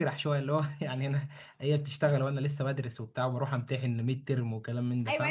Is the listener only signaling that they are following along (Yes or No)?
No